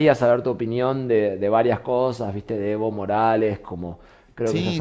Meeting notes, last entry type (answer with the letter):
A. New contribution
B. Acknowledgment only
A